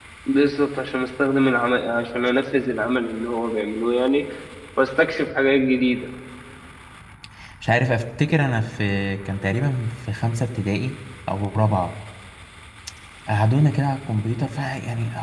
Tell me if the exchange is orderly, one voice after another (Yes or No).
Yes